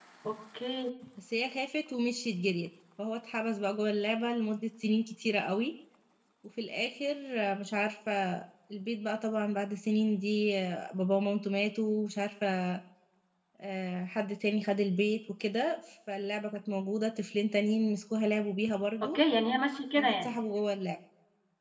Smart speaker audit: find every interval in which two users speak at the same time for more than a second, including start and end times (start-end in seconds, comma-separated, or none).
none